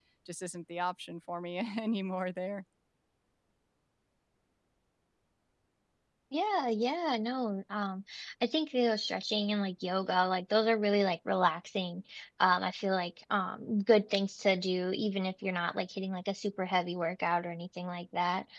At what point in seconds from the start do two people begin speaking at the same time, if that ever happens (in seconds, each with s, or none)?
none